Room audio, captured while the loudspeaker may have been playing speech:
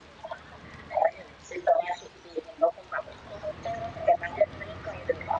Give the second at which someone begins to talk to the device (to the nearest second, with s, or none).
none